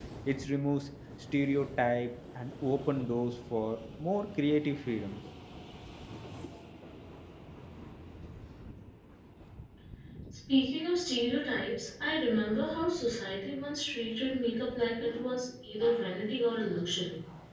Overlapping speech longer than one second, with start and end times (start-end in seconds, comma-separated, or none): none